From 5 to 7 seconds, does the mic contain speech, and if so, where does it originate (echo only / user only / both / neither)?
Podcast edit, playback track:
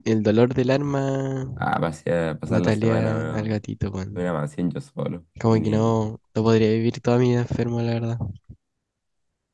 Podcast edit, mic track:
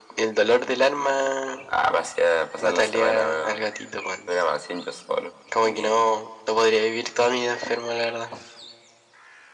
echo only